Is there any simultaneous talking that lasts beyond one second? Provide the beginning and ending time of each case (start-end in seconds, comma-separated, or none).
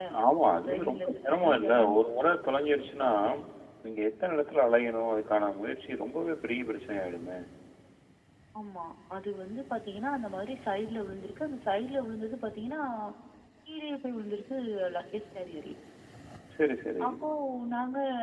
0.7-2.0